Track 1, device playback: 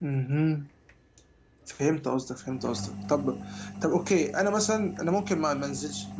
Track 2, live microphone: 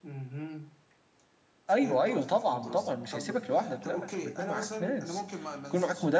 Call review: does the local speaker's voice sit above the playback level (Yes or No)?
Yes